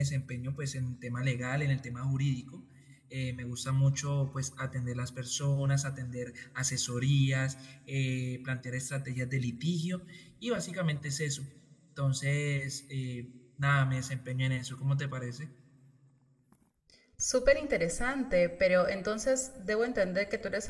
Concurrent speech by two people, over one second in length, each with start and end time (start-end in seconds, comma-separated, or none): none